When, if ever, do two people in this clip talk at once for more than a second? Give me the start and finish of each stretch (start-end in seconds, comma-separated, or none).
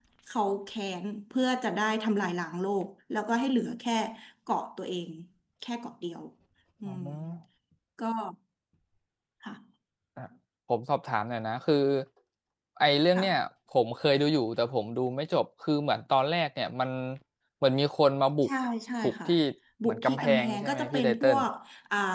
19.9-21.4